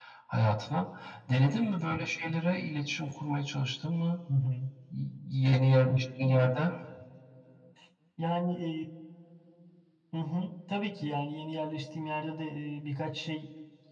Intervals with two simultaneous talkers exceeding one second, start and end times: none

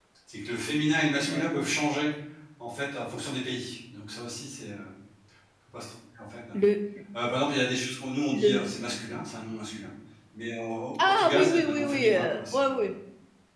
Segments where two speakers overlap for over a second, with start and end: 11.0-12.8

